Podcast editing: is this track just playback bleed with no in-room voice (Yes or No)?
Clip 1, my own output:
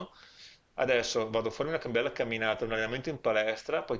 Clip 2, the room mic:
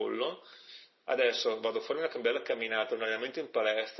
Yes